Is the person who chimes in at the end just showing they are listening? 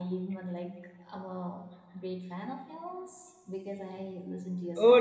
No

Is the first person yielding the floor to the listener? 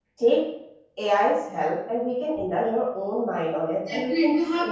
Yes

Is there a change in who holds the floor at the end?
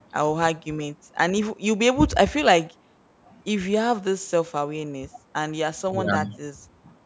No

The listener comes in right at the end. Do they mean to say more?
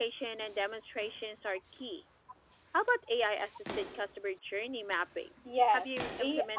Yes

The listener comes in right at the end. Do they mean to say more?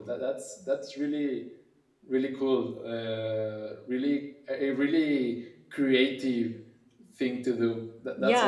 Yes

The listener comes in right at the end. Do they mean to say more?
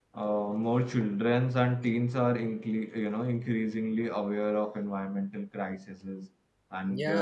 Yes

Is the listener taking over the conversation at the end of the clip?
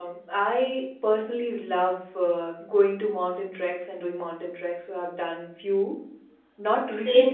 No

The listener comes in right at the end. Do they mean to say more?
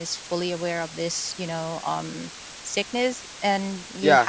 Yes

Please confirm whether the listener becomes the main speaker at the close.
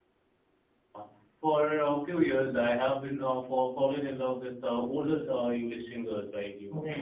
Yes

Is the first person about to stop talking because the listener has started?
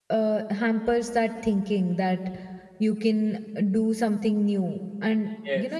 No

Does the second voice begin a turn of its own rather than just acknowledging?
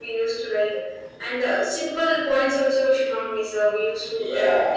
Yes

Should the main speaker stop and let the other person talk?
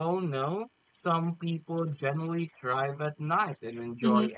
No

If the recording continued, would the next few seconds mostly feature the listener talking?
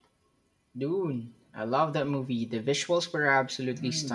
Yes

